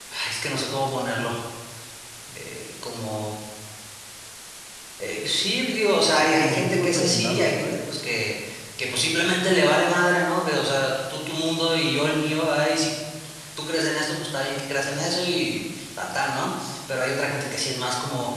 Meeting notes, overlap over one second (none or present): present